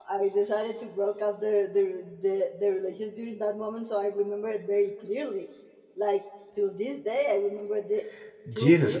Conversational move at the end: taking over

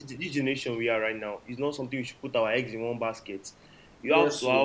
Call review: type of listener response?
listening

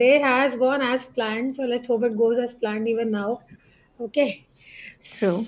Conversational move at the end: listening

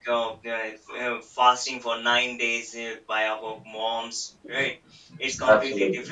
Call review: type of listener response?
listening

